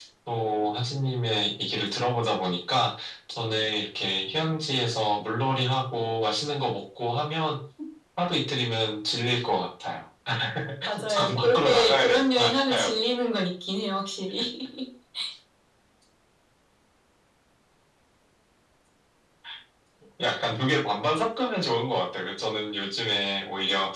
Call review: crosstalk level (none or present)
present